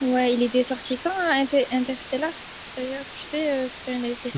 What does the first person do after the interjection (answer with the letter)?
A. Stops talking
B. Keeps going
A